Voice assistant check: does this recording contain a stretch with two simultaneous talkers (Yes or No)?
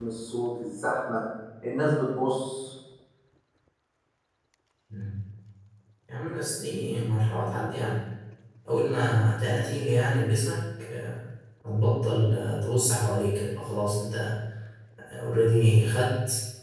No